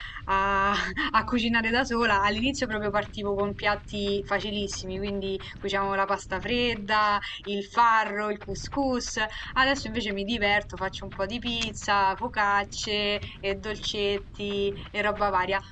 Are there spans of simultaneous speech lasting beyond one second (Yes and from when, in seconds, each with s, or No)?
No